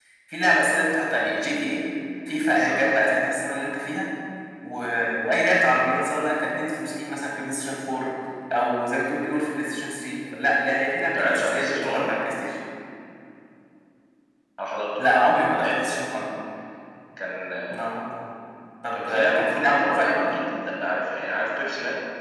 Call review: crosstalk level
present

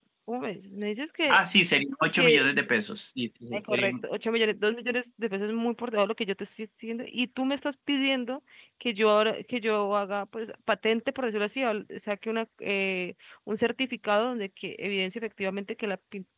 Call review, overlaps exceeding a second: none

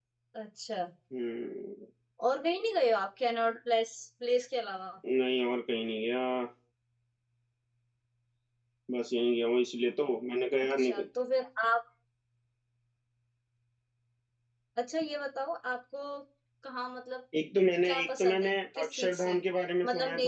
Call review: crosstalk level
present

